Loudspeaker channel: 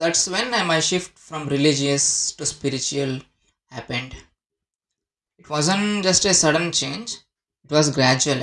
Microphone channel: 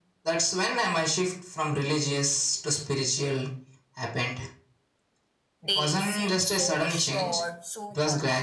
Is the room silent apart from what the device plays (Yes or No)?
No